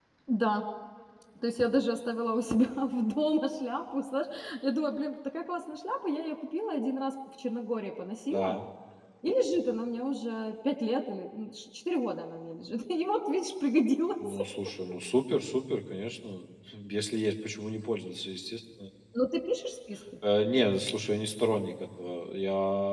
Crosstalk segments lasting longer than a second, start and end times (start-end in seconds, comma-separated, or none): none